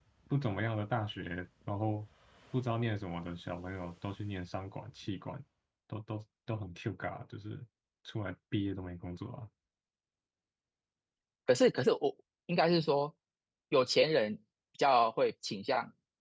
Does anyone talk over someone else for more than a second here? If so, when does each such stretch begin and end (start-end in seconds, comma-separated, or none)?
none